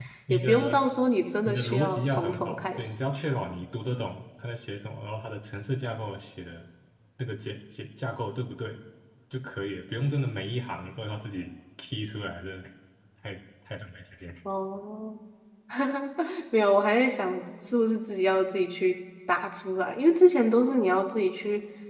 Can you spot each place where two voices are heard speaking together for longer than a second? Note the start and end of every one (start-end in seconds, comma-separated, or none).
1.4-2.9